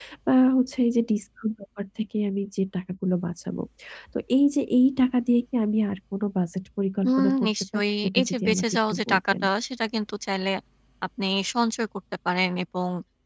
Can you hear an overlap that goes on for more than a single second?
Yes, from 7.0 s

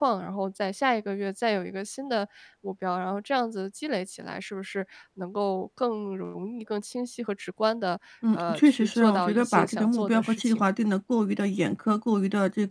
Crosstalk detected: Yes, from 8.2 s

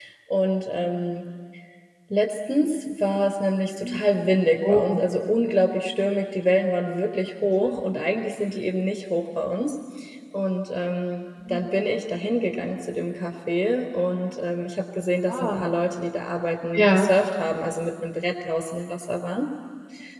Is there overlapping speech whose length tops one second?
No

